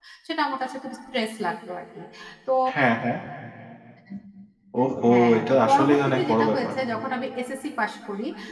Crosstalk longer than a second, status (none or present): present